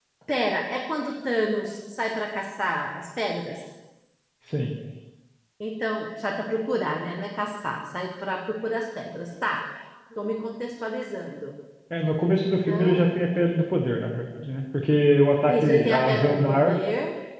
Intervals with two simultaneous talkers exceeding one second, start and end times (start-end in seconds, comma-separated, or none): 15.5-16.8